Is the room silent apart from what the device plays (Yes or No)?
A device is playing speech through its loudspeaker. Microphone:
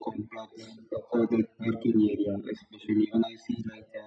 Yes